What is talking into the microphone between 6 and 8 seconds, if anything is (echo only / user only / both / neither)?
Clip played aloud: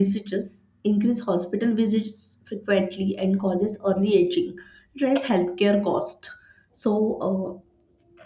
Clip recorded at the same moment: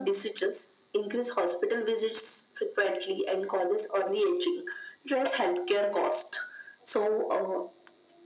echo only